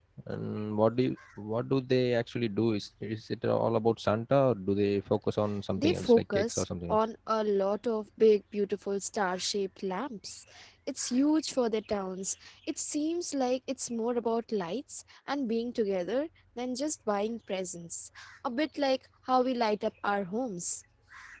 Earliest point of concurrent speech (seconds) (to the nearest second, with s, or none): 6 s